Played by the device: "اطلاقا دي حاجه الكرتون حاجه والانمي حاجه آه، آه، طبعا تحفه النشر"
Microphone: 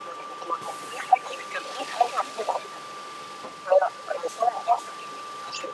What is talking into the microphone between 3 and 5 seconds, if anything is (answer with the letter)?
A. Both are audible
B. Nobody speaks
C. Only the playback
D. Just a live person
C